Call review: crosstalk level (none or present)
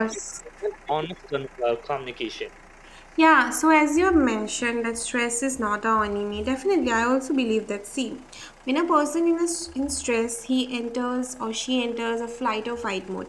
none